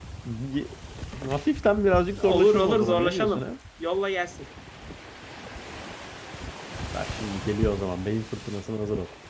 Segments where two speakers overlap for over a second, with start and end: 2.2-3.5

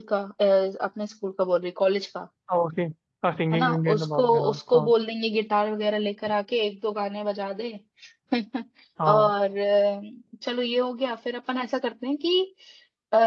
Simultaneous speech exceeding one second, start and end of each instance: 3.5-4.9

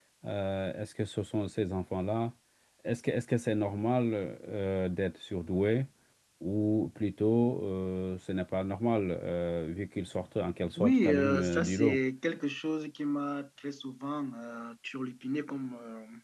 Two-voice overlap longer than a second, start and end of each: 10.8-12.0

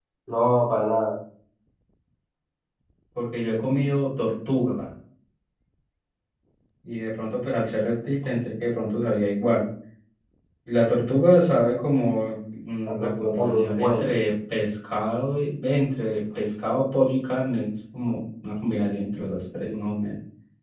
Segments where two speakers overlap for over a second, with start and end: 12.9-14.1

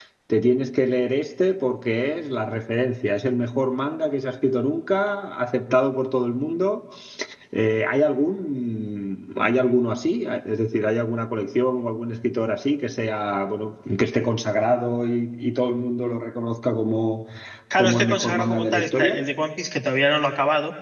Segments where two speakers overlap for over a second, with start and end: 17.8-19.2

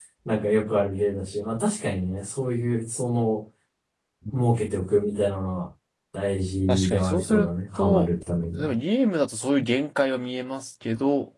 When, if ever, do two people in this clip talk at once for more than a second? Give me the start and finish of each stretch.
6.7-8.1

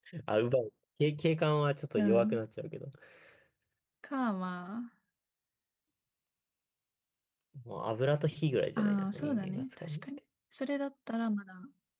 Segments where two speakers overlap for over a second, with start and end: 8.8-10.0

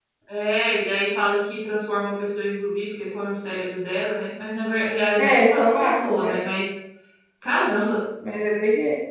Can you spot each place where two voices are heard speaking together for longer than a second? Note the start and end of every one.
5.2-6.4

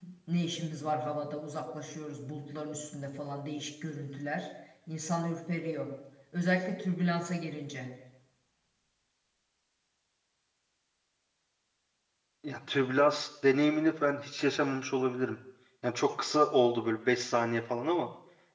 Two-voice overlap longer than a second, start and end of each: none

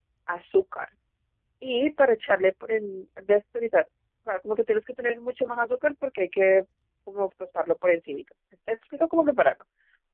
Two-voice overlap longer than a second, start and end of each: none

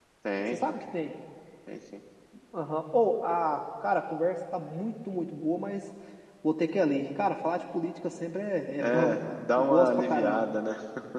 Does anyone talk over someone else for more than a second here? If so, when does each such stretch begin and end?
8.8-10.5

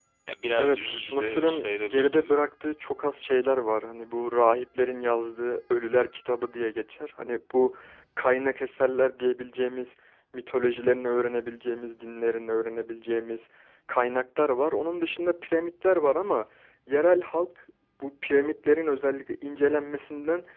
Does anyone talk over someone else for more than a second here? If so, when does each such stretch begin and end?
0.6-2.3

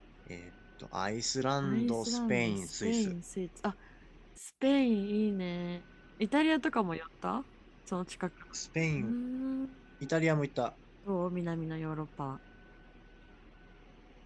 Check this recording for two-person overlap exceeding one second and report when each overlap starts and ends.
1.6-3.1

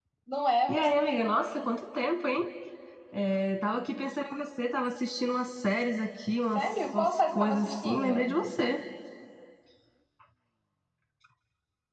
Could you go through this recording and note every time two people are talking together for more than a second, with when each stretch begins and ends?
6.5-8.3

